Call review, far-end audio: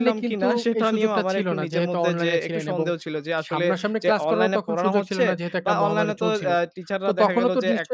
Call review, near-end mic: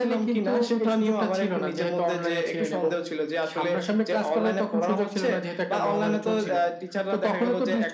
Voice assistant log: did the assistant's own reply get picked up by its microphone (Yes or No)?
Yes